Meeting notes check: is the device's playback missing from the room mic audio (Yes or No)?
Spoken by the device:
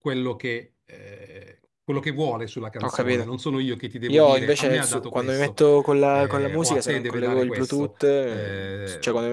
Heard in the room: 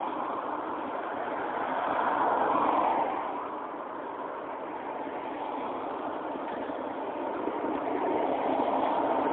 Yes